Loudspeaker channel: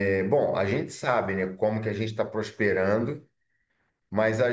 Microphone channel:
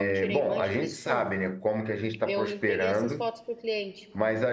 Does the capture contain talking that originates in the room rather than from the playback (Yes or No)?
Yes